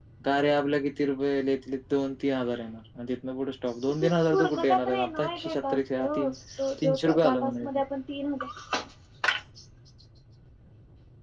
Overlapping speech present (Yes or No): Yes